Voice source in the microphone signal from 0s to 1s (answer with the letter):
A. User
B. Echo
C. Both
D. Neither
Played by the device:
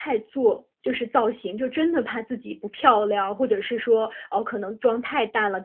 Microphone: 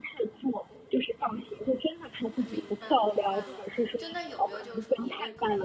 B